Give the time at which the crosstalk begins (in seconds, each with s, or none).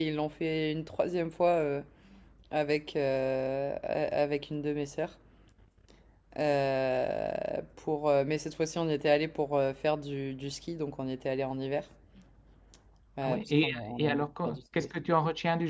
13.2 s